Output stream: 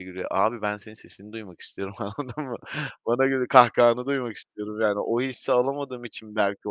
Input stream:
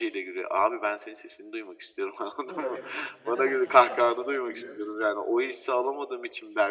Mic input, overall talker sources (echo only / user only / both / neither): both